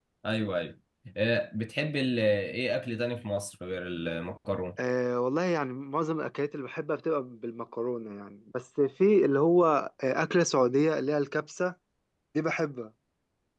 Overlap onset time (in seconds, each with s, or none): none